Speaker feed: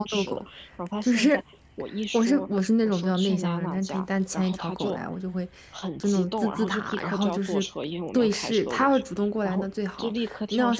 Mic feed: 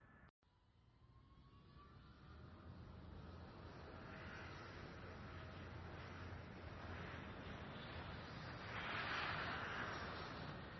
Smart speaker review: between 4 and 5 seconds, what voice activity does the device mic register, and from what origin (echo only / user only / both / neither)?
neither